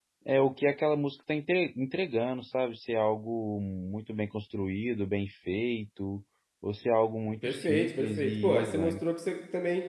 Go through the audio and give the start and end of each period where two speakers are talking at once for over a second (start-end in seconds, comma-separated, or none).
7.4-9.0